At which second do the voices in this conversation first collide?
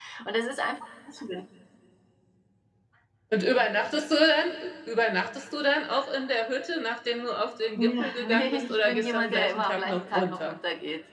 7.8 s

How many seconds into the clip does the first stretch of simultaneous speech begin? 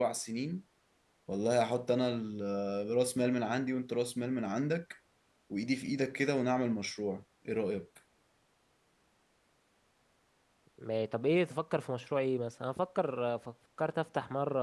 none

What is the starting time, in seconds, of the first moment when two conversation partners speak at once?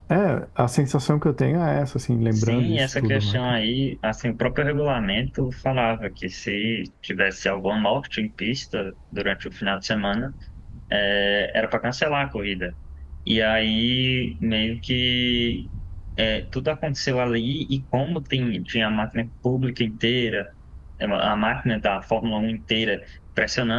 2.3 s

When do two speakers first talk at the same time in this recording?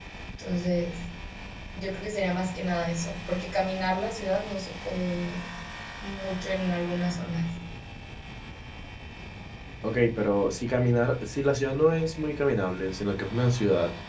none

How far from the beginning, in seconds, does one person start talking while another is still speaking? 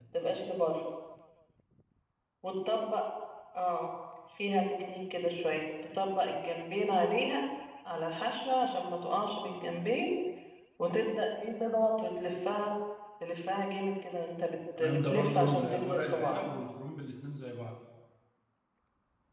14.8 s

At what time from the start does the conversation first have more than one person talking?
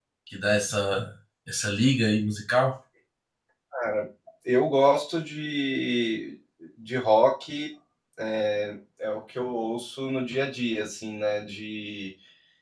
none

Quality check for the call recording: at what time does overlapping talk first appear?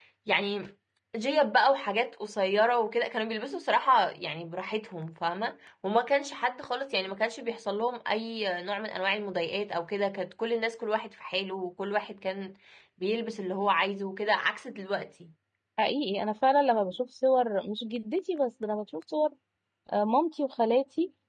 none

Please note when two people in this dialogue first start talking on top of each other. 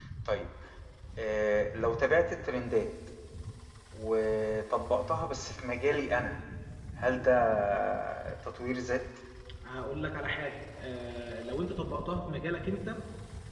none

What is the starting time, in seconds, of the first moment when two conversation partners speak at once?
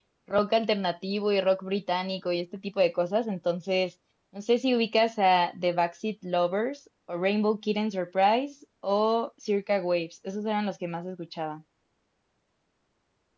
none

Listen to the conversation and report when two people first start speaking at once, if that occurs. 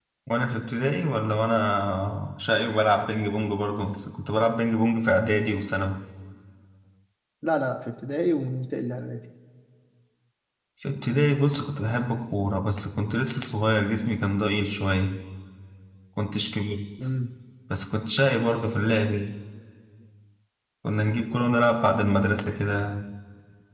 none

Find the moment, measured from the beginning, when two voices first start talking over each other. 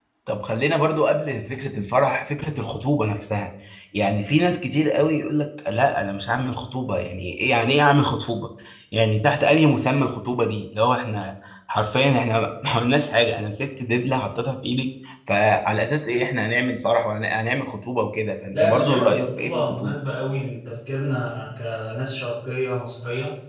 18.5 s

